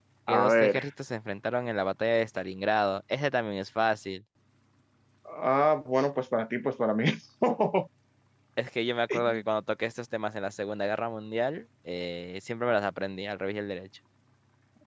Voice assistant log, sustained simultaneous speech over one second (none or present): none